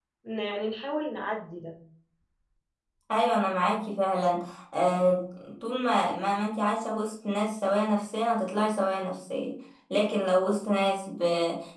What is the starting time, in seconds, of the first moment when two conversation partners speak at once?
none

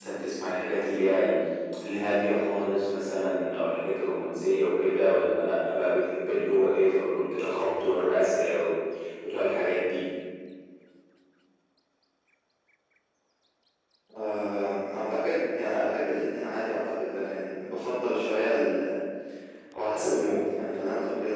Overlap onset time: none

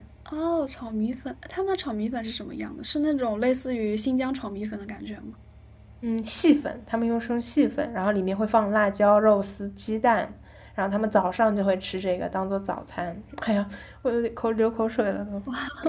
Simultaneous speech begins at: none

